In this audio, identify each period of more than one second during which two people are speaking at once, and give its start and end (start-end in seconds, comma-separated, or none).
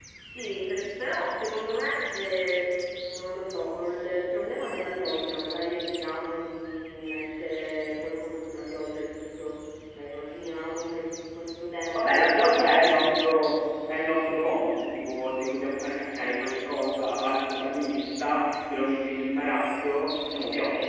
11.9-13.2